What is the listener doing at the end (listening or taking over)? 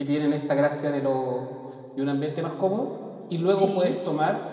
listening